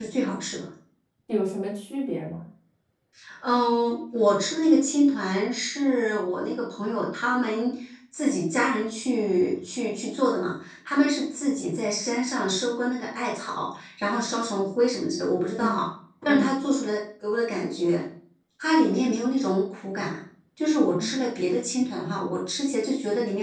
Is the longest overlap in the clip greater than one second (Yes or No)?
No